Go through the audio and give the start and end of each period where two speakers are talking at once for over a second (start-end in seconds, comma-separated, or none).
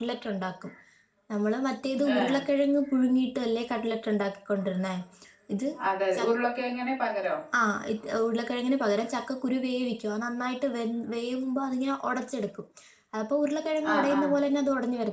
none